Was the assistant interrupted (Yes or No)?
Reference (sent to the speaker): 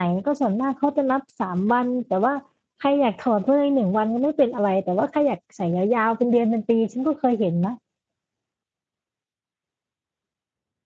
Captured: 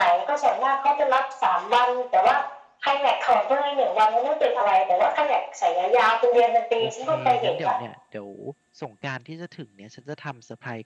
Yes